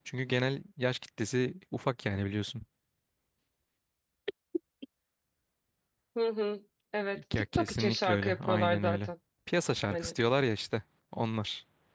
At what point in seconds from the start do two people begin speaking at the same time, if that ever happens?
7.3 s

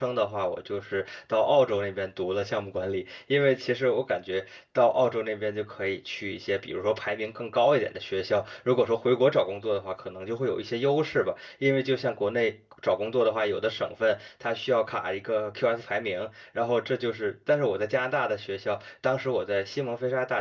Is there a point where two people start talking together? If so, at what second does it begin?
none

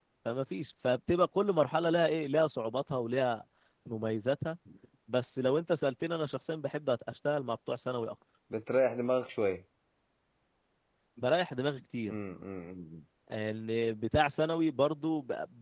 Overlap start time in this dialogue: none

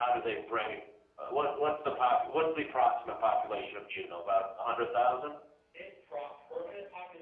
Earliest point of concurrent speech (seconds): none

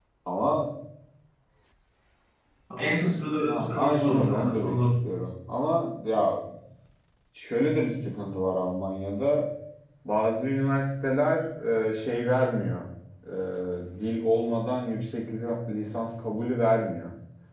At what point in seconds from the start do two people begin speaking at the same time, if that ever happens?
3.4 s

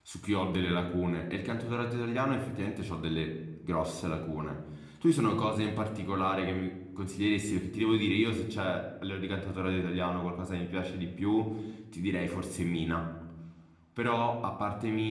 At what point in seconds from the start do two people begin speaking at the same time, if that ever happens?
none

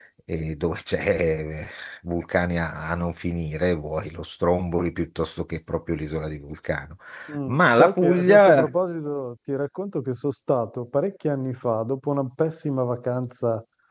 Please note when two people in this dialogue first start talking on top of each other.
7.5 s

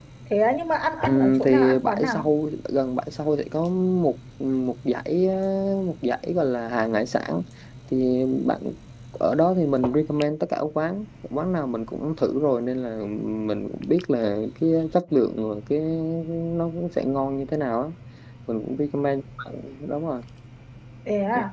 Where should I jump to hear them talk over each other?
1.1 s

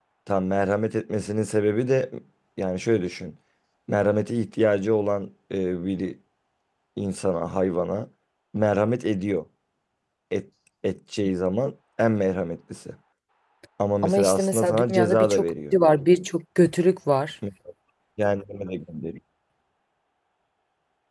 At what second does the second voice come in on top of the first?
14.0 s

